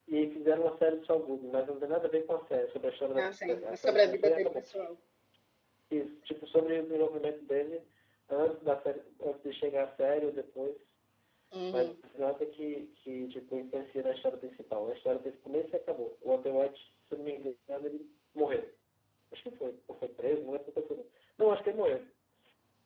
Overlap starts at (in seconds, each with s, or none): 3.2 s